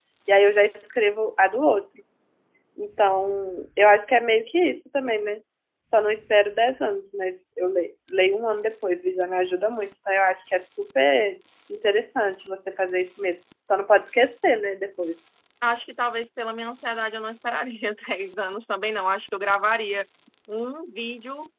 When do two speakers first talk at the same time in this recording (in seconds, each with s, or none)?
none